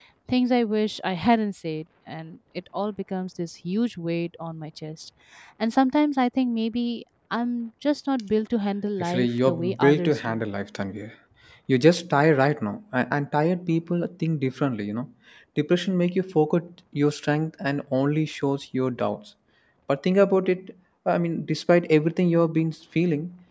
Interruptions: present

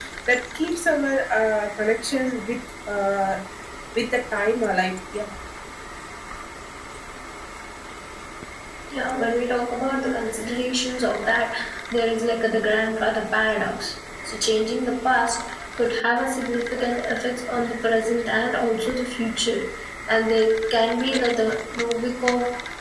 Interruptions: none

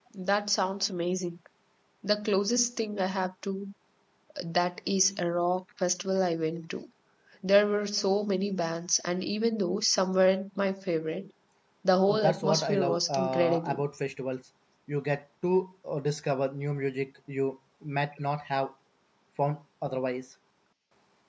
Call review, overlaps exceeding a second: present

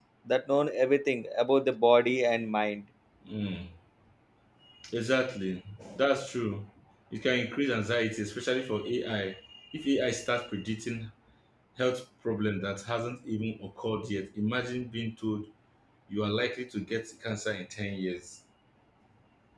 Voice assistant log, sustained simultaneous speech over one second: none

